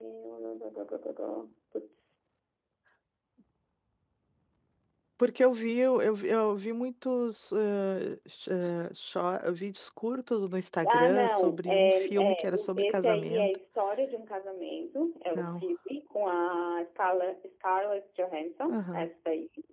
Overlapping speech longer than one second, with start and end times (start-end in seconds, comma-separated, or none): 10.9-13.6